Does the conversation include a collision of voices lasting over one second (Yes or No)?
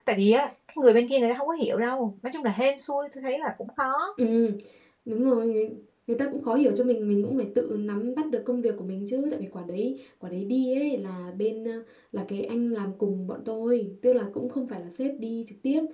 No